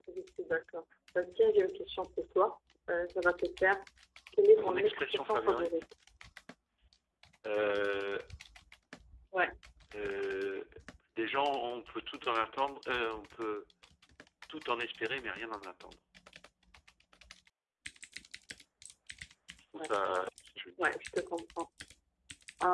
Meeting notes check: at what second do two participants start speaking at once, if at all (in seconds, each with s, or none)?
4.6 s